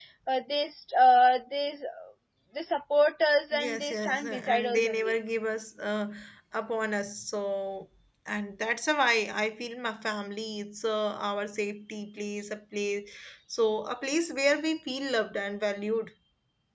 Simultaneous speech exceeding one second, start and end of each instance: 3.5-5.2

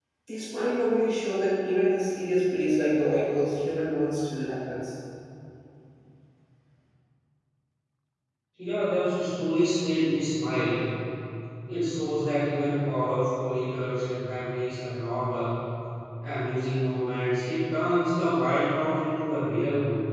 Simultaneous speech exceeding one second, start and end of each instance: none

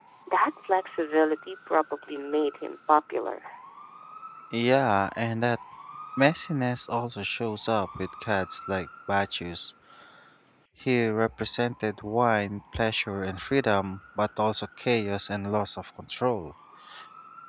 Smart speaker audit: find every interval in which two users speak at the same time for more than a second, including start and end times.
none

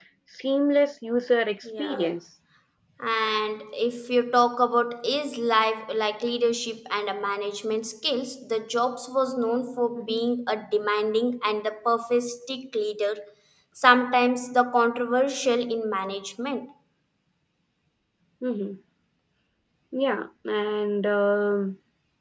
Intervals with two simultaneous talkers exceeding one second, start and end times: none

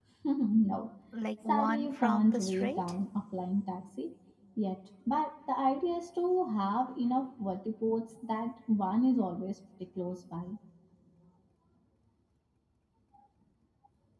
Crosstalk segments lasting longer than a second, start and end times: 1.5-2.8

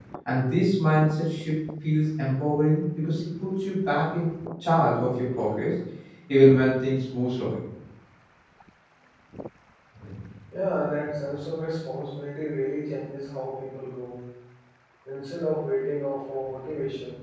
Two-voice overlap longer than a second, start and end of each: none

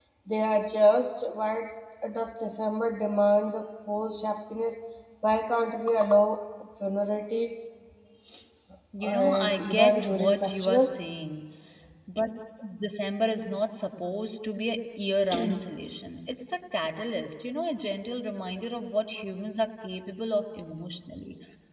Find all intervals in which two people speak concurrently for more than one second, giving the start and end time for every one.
9.0-10.9

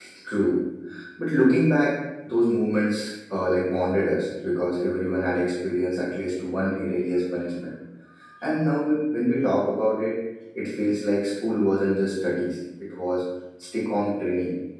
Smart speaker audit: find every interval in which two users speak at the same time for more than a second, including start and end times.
none

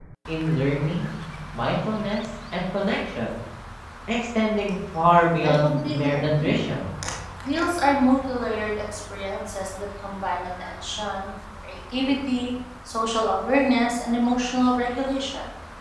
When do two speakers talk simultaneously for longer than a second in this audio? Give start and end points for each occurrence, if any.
5.4-6.7

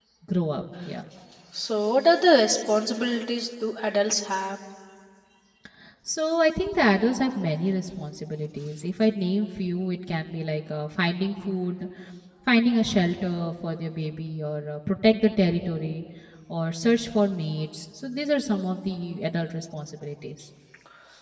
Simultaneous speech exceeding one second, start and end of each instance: none

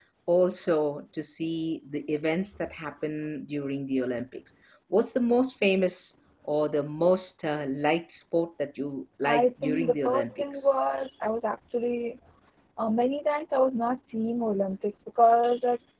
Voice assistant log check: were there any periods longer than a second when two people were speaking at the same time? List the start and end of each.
9.2-10.7

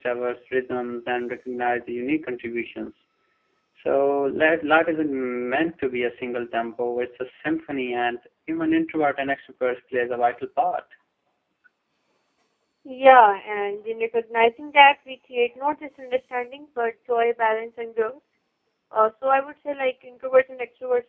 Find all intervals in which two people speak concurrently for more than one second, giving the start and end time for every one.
none

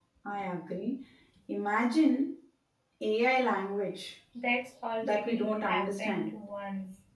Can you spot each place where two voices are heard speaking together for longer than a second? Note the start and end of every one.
5.0-6.3

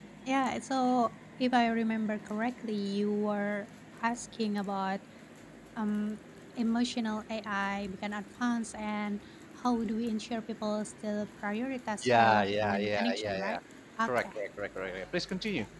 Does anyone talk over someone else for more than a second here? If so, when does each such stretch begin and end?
12.0-13.6

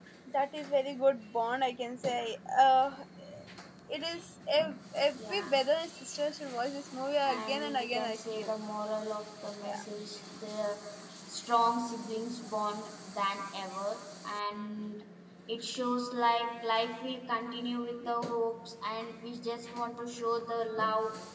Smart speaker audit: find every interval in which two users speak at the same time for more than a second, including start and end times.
7.2-8.5

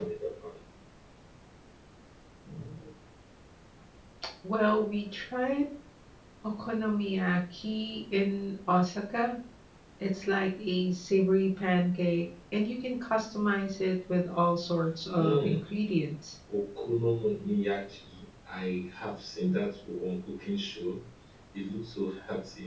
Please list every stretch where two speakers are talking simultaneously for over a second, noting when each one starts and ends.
none

